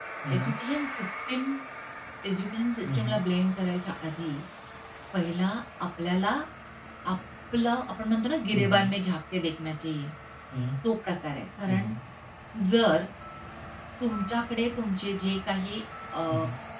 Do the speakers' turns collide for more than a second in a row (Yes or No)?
No